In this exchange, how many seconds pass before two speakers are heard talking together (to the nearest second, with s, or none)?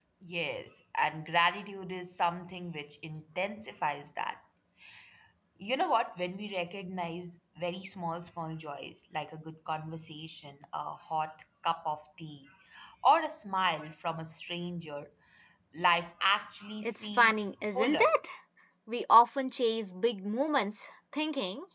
17 s